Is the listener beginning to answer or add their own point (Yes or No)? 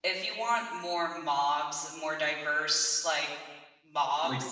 No